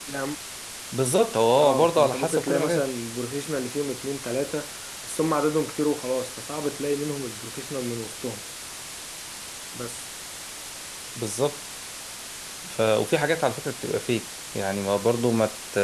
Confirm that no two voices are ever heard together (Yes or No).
No